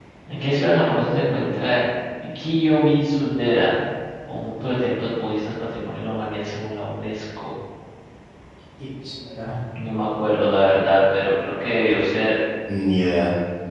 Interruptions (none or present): none